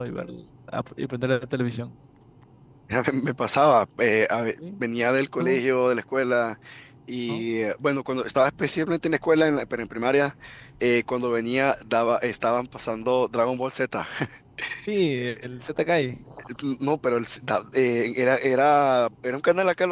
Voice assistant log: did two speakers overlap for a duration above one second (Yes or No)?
No